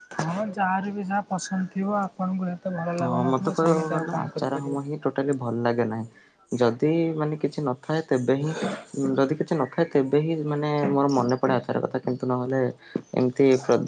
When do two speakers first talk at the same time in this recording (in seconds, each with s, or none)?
3.0 s